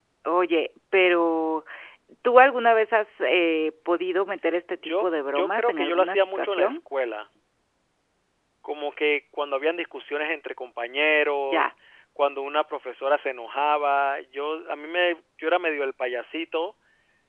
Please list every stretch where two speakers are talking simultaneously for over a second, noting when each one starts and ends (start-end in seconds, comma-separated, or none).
4.8-6.8